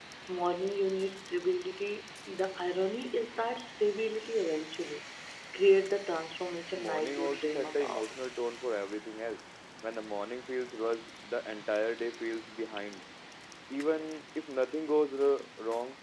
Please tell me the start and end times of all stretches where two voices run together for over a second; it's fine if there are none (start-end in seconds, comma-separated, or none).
6.7-8.2